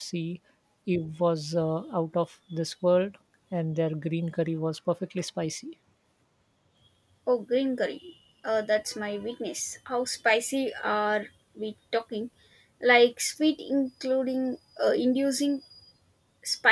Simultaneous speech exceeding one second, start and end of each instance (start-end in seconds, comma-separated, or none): none